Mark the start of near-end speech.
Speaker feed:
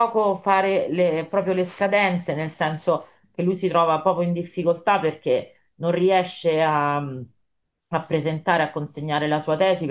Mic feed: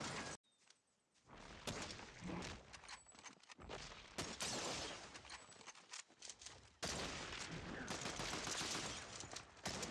none

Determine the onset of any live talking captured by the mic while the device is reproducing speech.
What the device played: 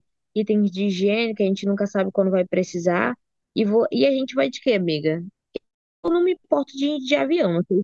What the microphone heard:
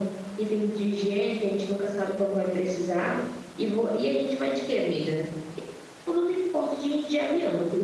none

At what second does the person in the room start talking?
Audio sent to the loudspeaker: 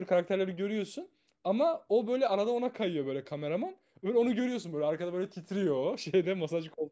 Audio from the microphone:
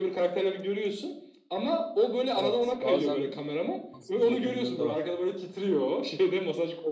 2.3 s

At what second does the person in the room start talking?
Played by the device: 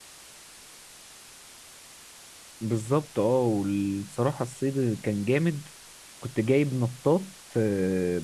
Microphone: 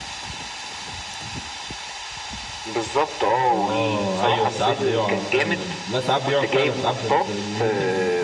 3.5 s

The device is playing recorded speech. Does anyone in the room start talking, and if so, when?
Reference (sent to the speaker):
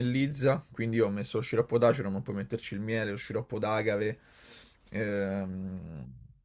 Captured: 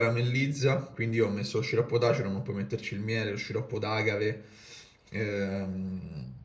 none

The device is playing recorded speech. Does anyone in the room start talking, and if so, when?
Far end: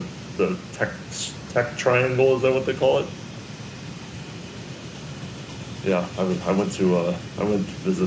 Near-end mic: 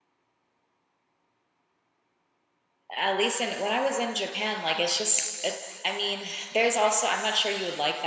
3.0 s

